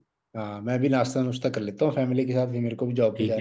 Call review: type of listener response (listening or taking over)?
taking over